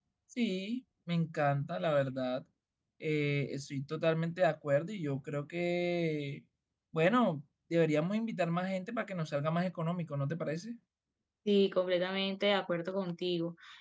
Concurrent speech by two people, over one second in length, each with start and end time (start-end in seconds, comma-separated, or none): none